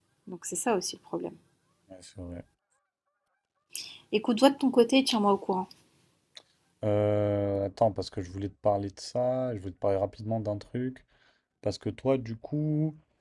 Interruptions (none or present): none